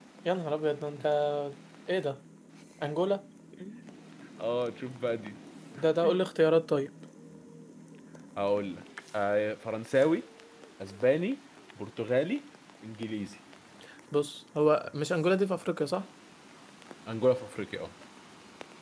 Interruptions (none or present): none